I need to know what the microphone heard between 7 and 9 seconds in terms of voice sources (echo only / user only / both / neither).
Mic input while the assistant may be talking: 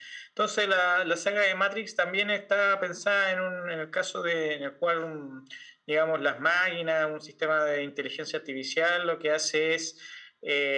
echo only